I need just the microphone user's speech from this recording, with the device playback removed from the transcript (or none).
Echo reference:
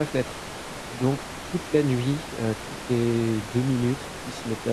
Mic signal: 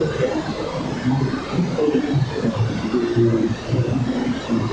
none